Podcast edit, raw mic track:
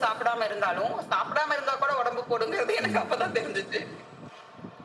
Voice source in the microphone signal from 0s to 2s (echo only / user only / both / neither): echo only